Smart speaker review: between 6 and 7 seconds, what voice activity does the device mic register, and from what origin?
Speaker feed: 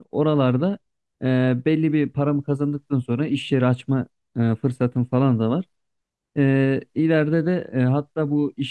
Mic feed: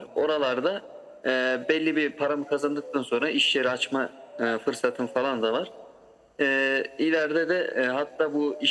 echo only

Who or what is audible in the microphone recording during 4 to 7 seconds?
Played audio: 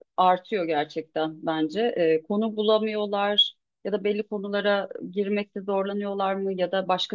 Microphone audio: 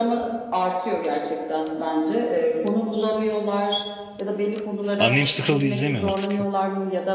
both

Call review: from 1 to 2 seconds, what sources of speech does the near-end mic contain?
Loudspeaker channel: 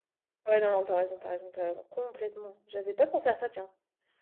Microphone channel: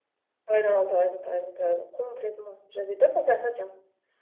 echo only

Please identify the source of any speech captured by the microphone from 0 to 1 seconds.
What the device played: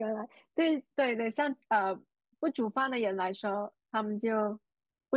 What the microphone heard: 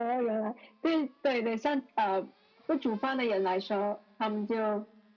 echo only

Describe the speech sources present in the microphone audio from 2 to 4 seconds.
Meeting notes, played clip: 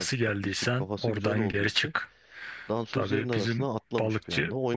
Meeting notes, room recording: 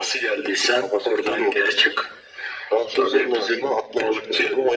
echo only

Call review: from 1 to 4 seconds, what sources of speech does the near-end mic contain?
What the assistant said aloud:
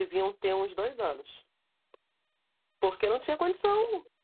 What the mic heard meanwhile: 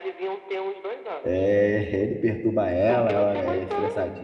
both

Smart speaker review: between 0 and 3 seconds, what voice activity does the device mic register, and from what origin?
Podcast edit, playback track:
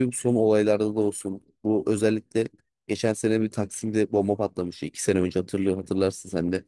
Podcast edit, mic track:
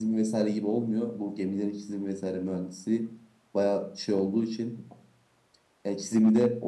user only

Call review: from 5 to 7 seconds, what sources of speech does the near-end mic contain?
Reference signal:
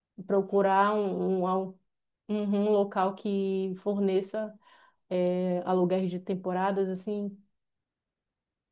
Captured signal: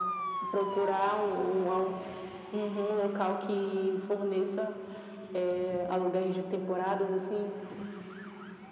echo only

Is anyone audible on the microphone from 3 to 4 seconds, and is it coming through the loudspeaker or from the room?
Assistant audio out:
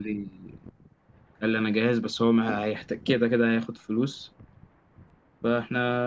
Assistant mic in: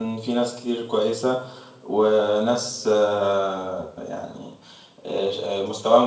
user only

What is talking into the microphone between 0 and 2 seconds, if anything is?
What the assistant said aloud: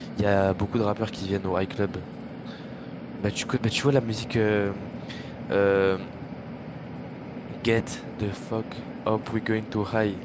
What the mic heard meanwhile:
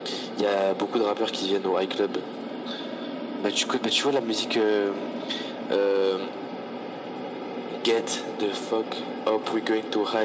echo only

